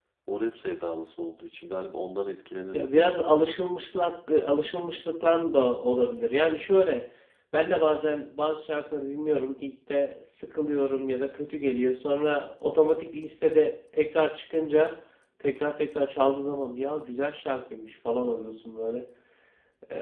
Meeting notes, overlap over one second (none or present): none